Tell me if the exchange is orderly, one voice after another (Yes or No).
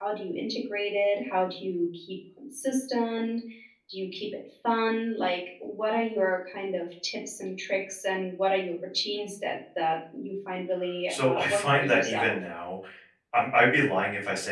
No